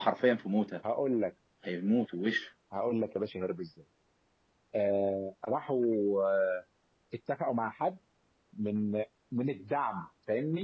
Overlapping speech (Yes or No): No